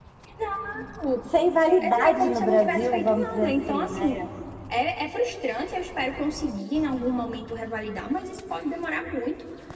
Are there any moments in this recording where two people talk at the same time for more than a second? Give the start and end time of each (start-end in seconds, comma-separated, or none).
1.8-4.2